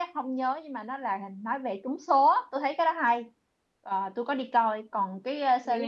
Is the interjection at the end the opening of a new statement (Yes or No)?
No